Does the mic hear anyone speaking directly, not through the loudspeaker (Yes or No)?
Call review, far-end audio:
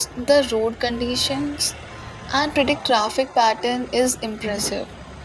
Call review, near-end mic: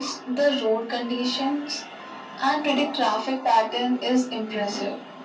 No